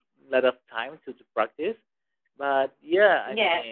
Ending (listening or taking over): listening